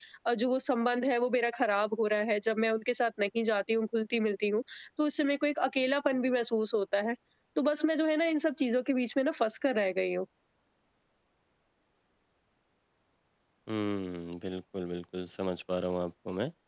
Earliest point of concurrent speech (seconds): none

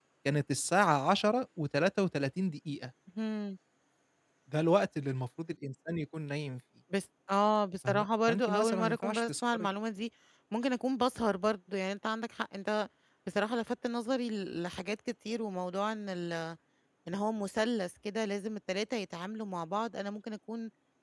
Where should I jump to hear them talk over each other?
7.8 s

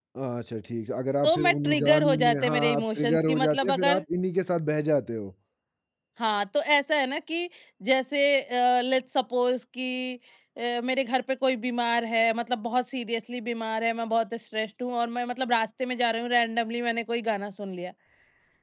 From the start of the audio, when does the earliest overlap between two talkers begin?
1.2 s

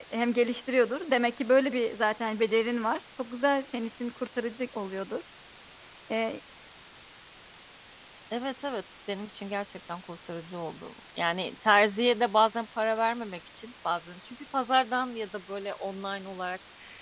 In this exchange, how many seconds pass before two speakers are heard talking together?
none

